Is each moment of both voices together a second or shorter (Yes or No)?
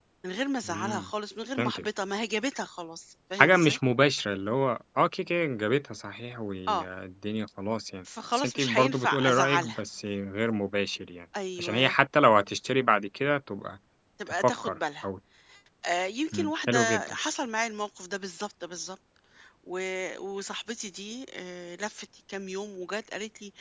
No